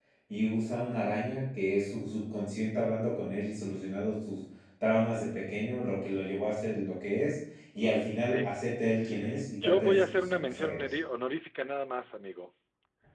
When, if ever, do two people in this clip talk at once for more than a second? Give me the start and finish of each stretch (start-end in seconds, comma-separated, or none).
9.6-10.9